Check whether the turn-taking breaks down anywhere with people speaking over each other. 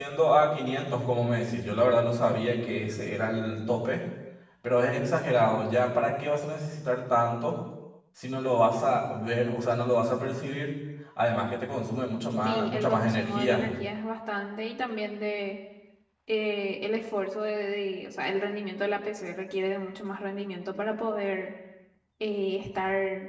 Yes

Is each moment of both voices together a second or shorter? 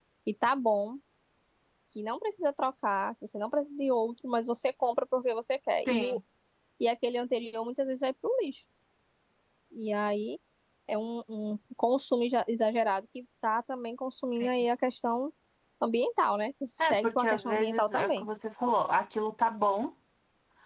No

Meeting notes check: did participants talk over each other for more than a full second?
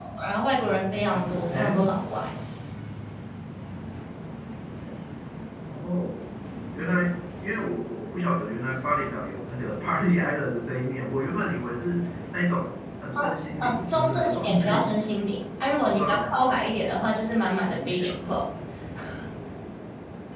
Yes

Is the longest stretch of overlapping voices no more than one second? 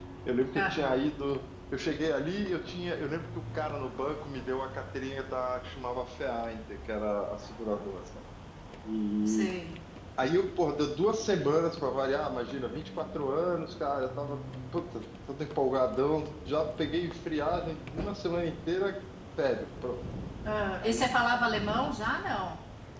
Yes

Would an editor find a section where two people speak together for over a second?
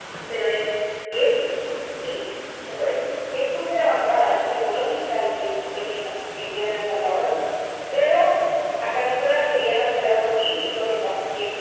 No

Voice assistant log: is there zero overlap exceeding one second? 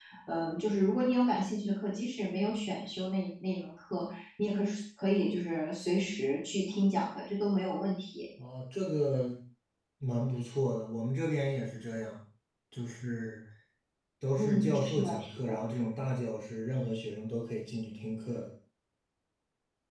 No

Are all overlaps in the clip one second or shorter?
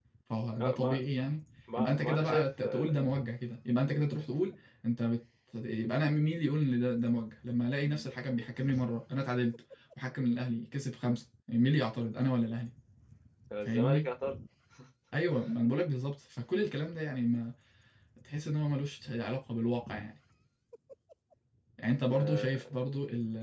No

